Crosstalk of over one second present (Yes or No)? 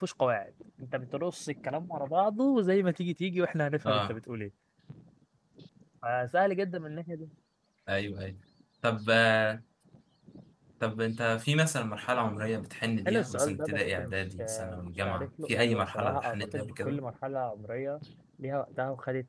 Yes